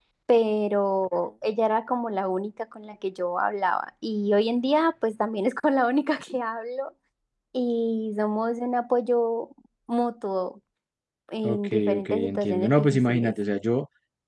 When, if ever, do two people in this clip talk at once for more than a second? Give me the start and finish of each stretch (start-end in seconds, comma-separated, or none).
11.4-13.3